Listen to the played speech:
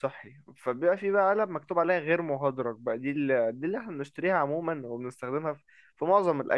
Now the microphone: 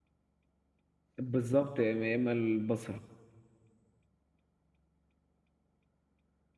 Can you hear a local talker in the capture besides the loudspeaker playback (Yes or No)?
Yes